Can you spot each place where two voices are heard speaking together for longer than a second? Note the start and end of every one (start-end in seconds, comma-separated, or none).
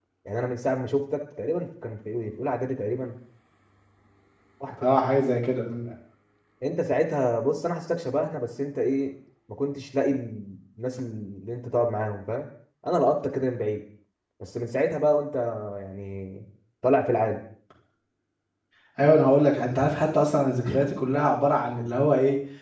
none